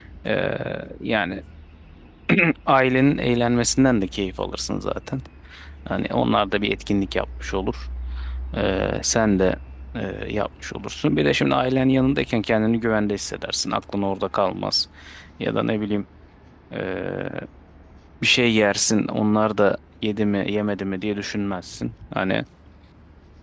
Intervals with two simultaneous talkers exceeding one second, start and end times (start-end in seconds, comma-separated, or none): none